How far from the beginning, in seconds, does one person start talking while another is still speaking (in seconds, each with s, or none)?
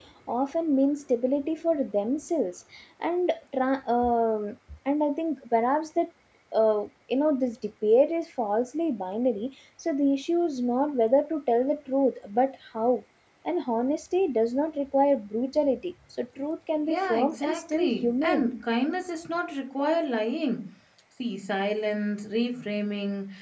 16.9 s